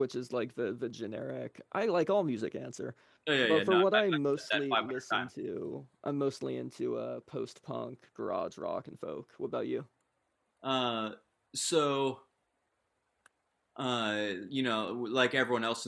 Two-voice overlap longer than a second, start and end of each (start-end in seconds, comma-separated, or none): 3.4-5.3